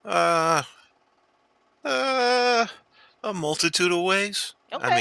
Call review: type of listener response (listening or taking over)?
listening